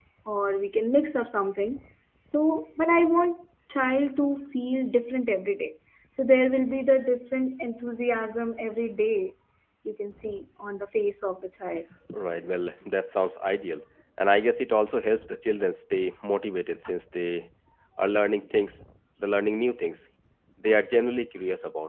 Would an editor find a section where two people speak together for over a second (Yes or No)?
No